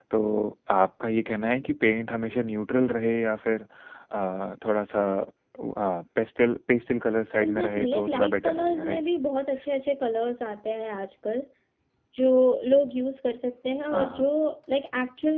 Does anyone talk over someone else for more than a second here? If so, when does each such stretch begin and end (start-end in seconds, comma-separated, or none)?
7.4-9.0